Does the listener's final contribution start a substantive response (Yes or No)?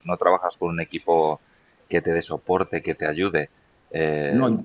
No